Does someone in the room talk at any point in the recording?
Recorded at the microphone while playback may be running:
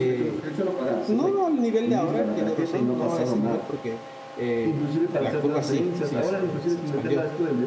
Yes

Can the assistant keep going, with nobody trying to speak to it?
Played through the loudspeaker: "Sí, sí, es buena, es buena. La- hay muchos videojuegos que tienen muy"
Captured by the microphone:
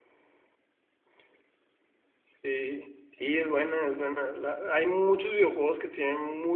Yes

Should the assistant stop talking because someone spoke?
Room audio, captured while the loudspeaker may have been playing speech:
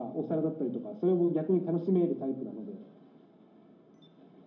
No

